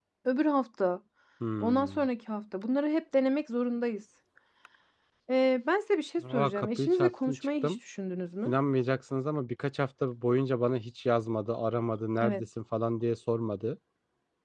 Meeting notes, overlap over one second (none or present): present